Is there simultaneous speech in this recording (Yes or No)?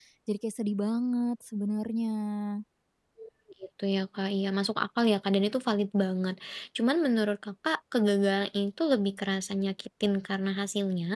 No